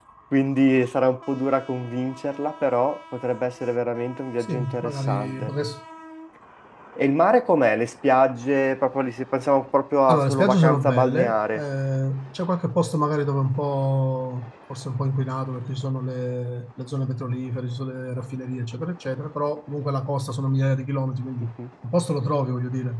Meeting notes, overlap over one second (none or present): present